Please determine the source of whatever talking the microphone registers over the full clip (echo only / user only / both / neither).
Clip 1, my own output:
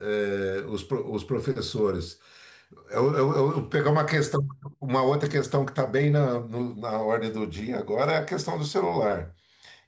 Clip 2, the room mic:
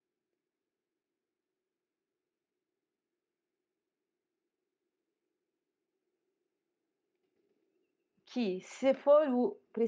user only